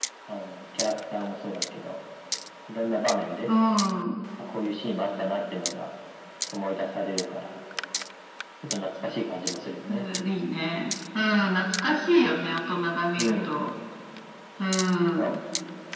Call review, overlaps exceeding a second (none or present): none